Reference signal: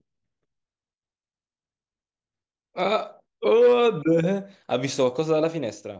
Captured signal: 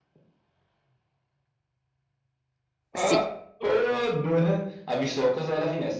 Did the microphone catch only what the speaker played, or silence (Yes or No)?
No